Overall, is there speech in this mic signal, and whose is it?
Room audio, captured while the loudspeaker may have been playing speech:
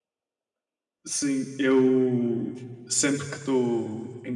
user only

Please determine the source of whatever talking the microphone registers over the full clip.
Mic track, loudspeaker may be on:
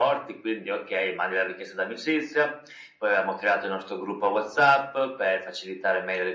echo only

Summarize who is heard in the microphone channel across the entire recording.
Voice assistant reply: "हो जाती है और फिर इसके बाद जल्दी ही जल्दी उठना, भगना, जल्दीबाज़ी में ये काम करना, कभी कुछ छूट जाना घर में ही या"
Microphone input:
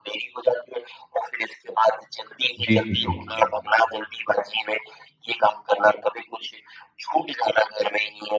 both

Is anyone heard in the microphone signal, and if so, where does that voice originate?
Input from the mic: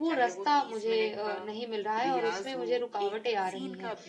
both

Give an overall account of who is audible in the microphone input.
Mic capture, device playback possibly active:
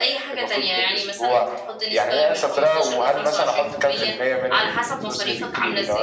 both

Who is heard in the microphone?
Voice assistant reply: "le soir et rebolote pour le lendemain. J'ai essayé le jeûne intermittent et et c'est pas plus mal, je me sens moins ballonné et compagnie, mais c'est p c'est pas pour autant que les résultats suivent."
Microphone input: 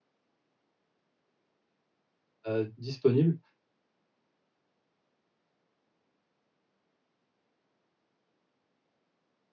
user only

